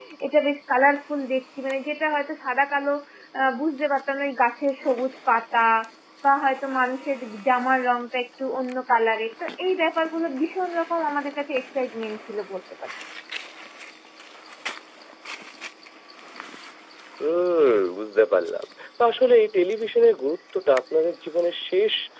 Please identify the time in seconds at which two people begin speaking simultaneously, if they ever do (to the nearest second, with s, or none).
none